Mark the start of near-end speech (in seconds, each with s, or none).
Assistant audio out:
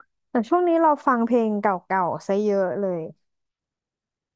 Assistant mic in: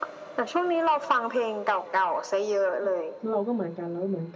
2.7 s